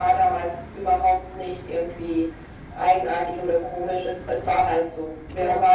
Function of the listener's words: listening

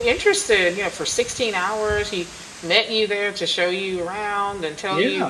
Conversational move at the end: listening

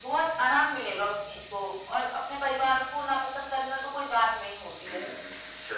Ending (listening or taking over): taking over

